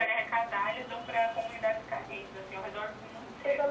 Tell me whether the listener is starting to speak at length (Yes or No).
Yes